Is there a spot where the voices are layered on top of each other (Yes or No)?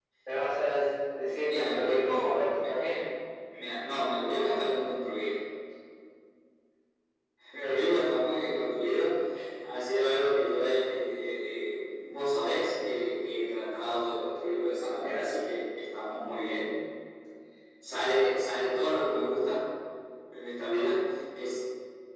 Yes